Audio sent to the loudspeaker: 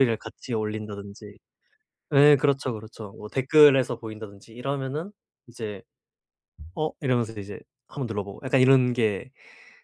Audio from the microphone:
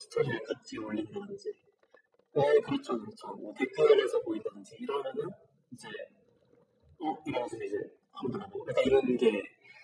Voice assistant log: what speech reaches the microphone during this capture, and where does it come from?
echo only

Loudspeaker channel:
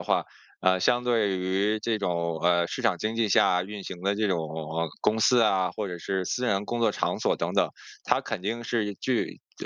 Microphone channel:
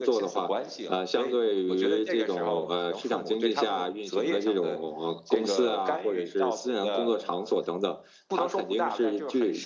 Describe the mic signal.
both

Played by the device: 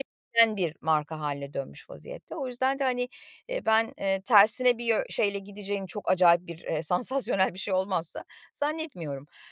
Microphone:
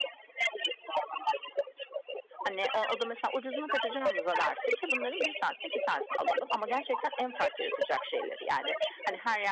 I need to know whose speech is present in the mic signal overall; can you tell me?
both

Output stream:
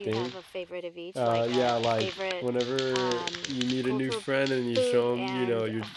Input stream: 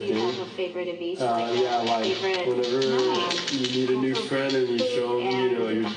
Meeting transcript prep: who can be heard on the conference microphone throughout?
both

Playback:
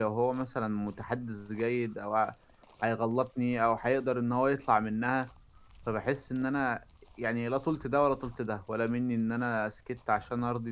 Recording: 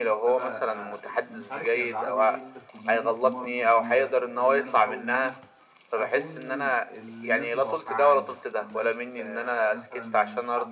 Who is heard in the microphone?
both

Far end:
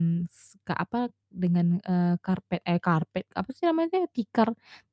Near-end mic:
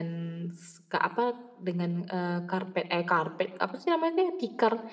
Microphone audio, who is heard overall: echo only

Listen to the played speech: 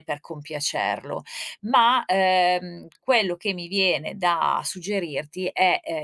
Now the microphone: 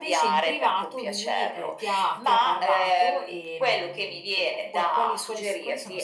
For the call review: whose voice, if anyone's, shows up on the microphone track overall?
both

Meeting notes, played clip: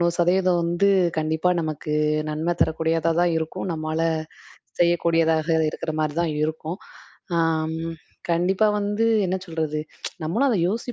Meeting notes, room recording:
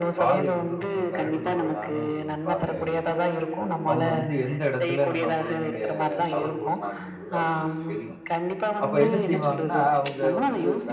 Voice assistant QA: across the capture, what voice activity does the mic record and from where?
both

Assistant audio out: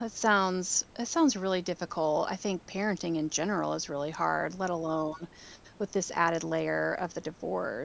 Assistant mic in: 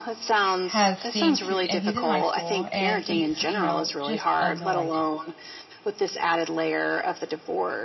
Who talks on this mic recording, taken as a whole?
both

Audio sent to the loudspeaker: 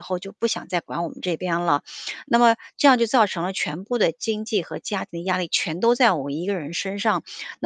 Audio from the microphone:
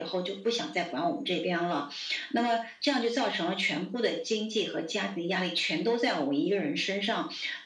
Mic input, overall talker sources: echo only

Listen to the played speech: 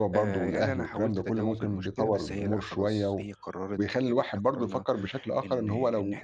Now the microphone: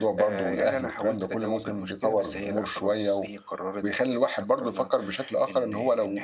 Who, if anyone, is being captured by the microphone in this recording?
echo only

